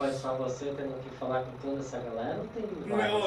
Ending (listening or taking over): taking over